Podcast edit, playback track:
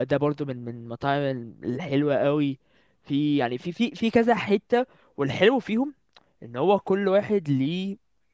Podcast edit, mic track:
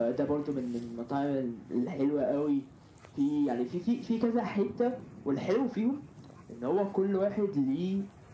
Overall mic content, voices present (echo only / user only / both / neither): echo only